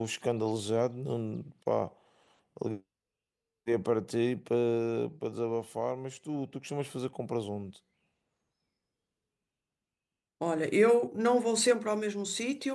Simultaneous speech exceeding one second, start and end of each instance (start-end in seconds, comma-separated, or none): none